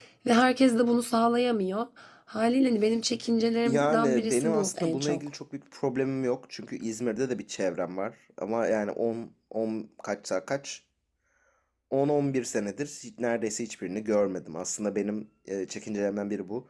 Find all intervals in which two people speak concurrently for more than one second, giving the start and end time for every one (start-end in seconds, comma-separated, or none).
3.6-5.2